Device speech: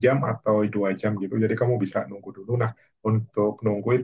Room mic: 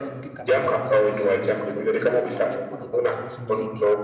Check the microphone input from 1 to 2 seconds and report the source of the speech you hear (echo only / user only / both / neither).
both